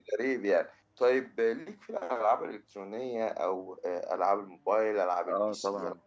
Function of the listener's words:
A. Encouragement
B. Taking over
B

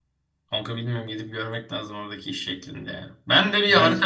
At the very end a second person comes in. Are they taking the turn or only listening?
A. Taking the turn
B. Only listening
B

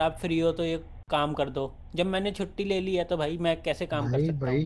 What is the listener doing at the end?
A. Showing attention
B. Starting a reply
B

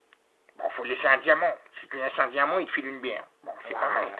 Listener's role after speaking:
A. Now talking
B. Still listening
A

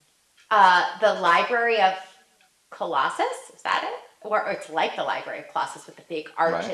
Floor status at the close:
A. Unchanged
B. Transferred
A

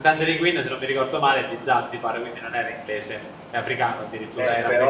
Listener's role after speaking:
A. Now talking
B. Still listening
A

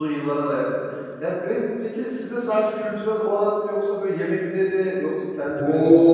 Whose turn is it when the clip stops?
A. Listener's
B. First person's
A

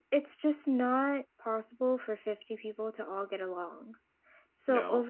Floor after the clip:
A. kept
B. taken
A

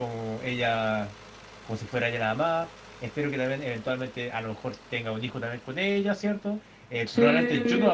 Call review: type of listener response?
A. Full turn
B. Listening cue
B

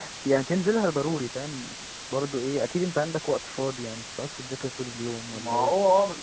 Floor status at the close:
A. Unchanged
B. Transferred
B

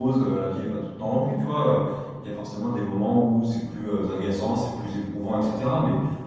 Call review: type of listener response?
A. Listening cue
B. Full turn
A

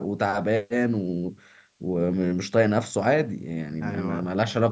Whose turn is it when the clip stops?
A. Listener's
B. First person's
B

